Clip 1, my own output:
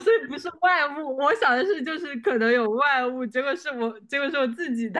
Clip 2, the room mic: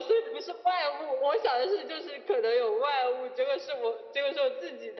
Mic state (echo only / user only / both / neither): echo only